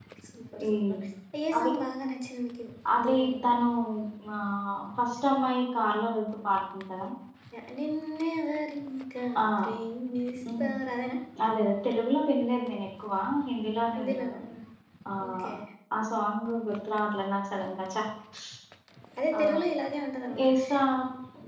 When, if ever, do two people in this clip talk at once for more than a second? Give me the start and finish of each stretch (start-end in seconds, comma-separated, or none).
none